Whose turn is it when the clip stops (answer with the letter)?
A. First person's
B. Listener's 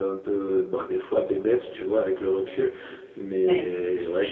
A